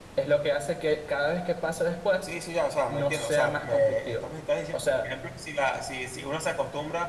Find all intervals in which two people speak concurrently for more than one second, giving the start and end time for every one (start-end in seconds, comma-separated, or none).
2.9-4.2